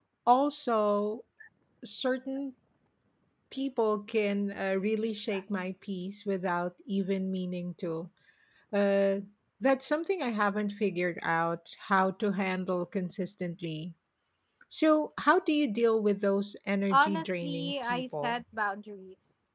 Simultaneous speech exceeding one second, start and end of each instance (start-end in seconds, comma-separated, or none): 16.9-18.4